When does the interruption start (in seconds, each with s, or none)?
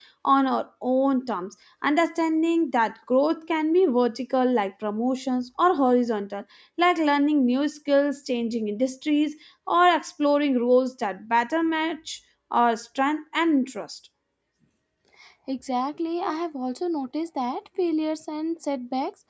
none